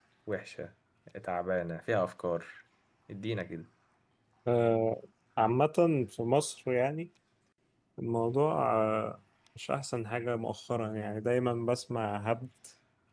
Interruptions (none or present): none